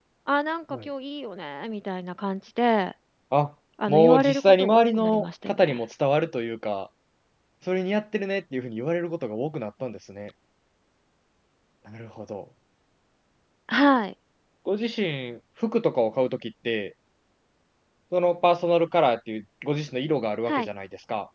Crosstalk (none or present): present